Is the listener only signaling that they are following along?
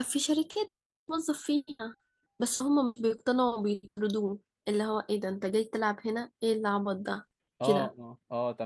No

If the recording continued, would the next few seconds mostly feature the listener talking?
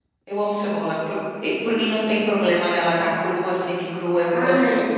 Yes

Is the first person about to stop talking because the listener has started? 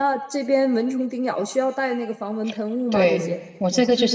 Yes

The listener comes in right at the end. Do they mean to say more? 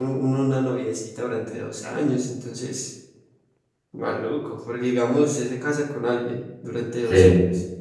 No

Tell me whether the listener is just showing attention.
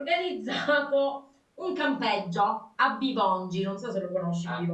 No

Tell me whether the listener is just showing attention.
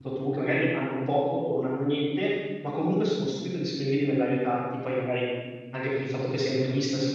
Yes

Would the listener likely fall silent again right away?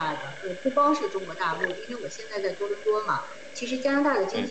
Yes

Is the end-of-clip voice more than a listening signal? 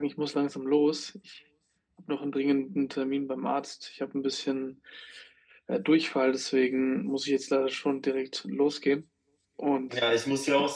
Yes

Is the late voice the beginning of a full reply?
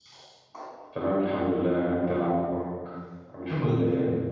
Yes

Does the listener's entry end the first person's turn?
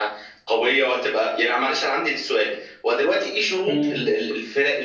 No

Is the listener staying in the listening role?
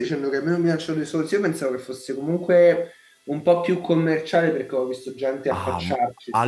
No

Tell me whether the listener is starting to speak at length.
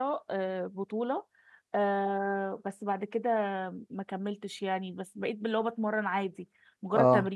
No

